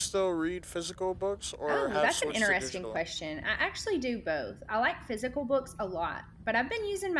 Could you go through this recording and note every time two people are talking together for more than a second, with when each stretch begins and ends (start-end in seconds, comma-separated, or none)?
1.7-3.0